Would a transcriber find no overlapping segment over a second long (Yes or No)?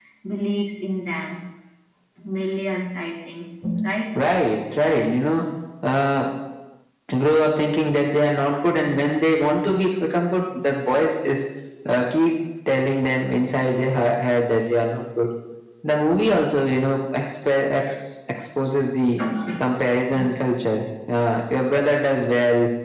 Yes